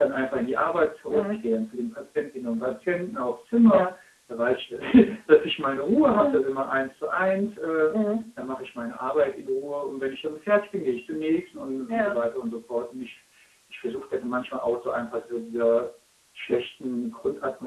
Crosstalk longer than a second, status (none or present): none